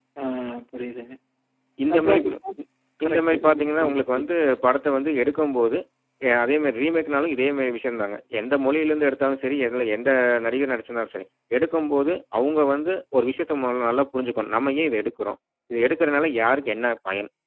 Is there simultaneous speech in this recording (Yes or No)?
Yes